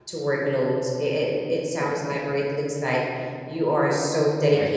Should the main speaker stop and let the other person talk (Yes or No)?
No